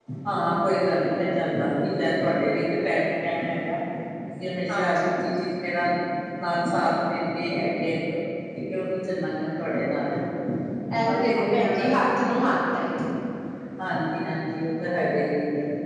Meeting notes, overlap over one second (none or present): present